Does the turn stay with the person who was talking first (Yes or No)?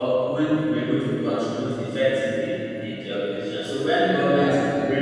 Yes